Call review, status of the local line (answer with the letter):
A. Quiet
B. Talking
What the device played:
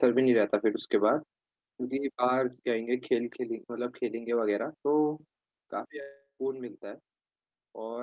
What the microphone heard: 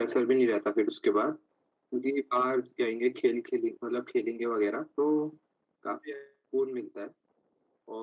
A